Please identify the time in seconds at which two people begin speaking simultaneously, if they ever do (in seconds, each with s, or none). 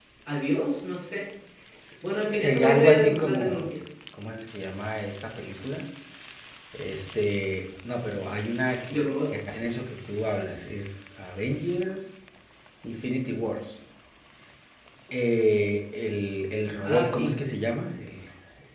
2.3 s